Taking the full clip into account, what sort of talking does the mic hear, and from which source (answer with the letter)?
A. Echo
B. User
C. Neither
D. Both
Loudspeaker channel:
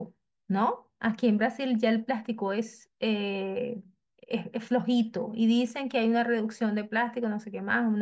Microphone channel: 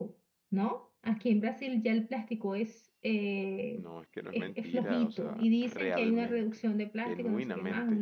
D